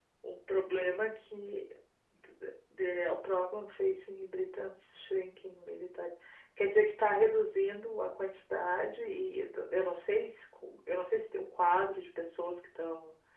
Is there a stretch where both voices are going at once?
No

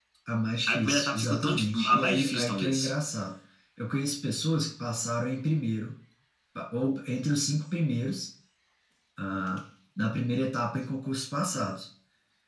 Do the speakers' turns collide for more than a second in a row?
Yes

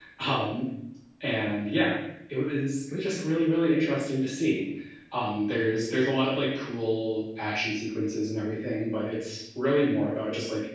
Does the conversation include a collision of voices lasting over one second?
No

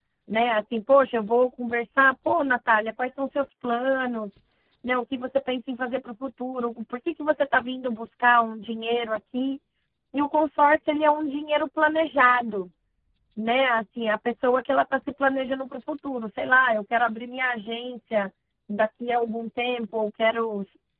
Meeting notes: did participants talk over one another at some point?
No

